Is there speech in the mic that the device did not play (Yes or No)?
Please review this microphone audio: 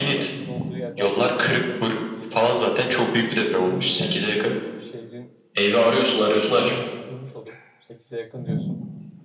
Yes